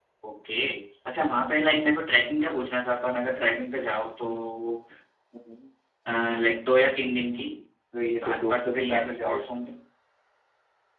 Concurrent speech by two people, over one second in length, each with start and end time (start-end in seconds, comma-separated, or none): 8.2-9.4